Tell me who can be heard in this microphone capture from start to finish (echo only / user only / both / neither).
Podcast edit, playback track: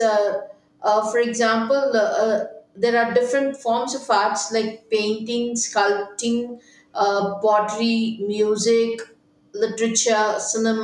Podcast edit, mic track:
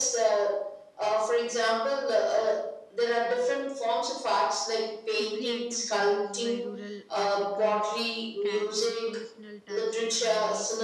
both